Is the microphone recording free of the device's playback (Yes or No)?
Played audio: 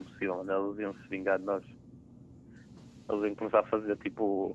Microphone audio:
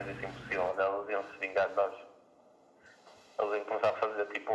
No